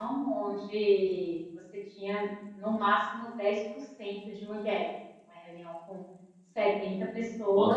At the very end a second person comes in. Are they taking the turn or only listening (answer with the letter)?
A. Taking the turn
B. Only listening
A